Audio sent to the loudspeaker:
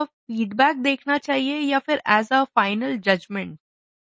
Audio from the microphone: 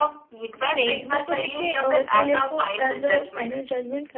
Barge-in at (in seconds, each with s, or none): 0.6 s